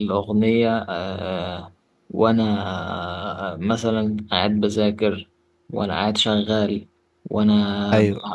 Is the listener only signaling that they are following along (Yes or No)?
Yes